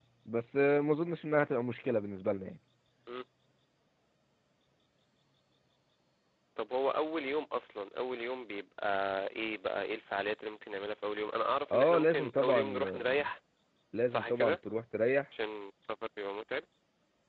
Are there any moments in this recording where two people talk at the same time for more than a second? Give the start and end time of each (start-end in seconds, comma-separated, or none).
11.7-13.2